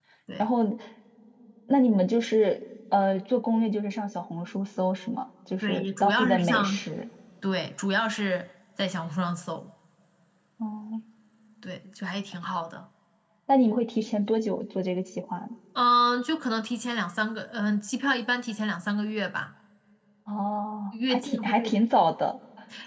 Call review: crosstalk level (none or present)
present